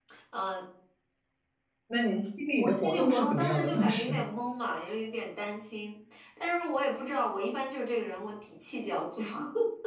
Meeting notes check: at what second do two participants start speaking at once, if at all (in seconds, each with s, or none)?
2.6 s